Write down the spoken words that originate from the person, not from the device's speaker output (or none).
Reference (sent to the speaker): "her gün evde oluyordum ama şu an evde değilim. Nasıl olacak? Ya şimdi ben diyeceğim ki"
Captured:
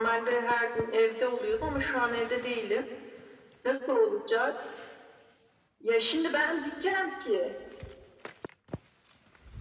none